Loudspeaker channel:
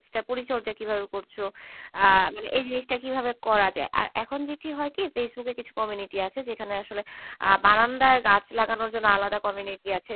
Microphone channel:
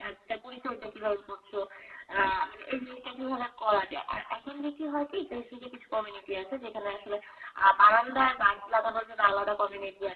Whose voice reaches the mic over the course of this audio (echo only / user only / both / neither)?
echo only